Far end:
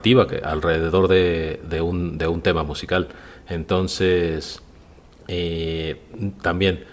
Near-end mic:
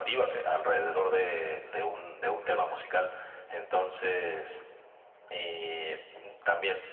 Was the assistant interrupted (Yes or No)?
No